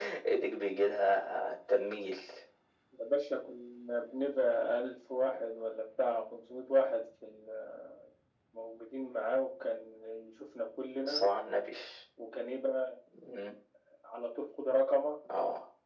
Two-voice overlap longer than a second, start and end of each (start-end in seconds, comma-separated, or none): none